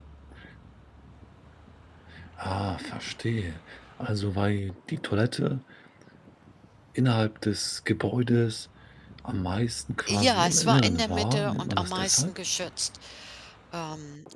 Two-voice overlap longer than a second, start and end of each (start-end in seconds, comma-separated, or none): 10.1-12.4